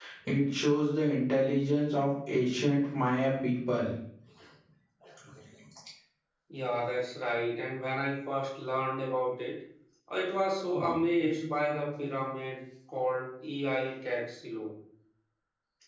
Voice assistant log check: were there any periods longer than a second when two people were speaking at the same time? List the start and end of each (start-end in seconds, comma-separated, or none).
none